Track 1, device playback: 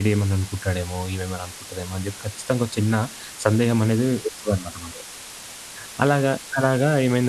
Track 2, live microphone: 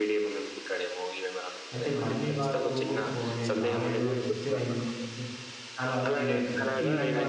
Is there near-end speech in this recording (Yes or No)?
Yes